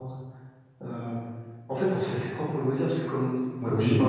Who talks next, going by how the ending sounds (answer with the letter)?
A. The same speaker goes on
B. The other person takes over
A